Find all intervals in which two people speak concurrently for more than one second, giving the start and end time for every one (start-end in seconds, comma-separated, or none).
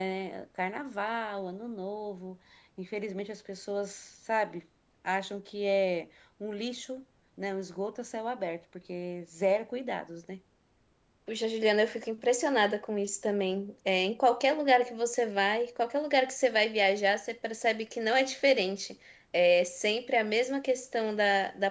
none